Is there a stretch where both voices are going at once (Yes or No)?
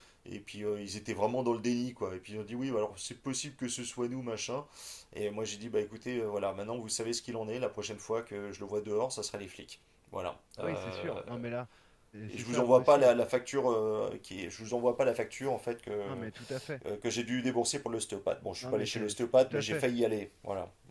Yes